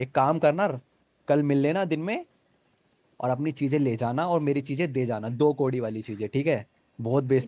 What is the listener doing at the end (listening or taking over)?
taking over